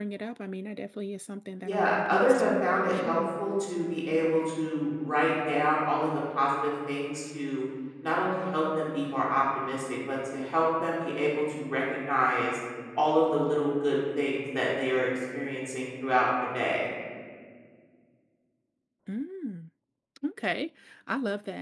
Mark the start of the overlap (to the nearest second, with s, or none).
2 s